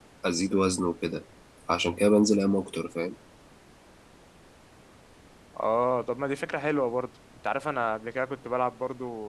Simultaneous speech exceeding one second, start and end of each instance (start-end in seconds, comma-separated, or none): none